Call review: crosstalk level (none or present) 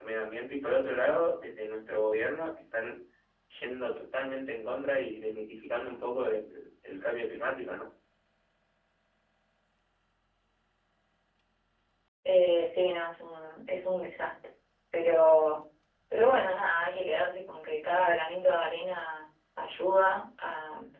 none